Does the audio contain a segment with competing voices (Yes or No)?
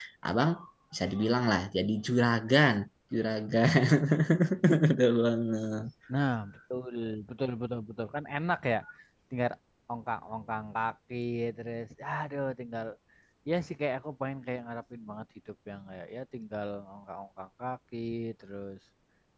No